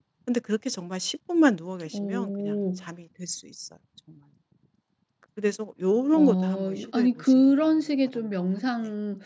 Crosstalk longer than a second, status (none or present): present